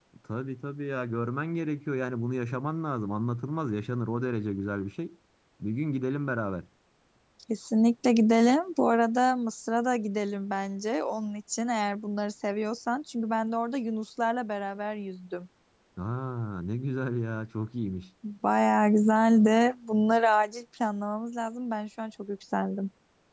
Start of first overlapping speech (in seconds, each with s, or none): none